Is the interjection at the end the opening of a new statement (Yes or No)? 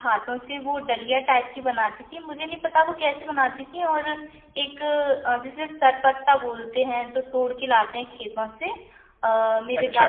No